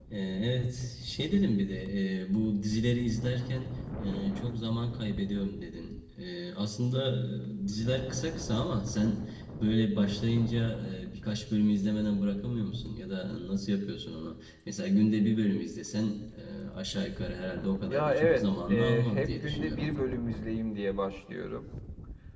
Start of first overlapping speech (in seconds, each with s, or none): 17.9 s